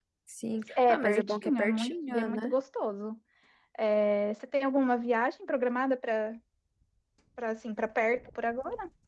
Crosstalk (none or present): present